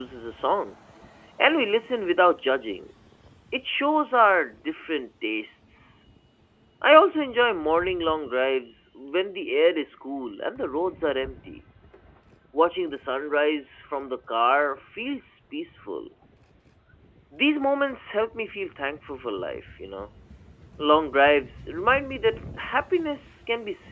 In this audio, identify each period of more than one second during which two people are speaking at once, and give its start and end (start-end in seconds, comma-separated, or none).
none